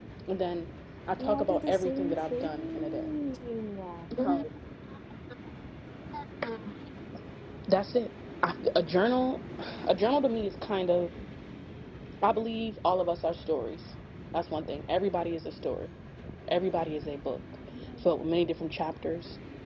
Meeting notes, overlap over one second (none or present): present